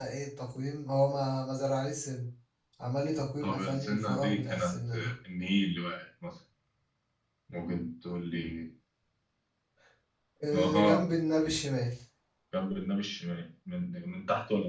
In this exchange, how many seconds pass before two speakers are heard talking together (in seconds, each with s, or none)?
3.4 s